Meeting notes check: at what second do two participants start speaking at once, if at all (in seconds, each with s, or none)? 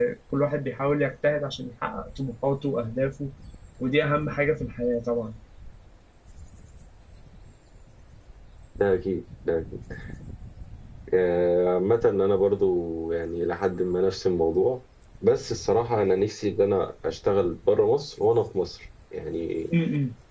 none